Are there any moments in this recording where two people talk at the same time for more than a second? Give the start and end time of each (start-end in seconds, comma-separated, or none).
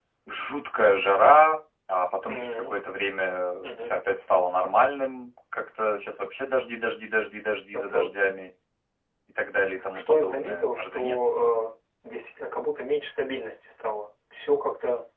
9.9-11.2